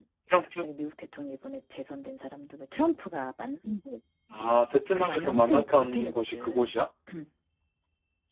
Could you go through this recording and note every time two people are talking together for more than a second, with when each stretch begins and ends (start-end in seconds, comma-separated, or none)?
4.9-6.7